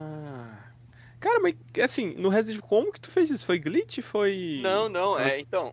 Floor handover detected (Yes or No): Yes